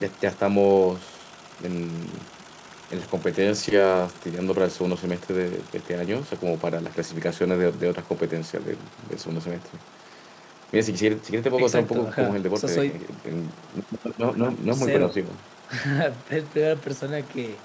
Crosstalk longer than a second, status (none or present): present